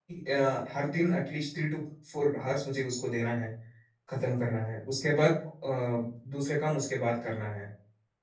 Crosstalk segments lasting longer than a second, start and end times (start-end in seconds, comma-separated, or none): none